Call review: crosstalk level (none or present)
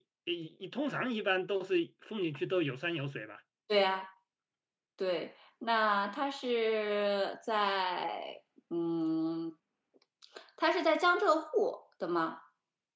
none